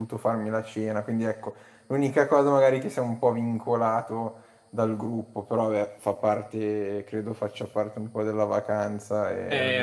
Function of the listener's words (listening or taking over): taking over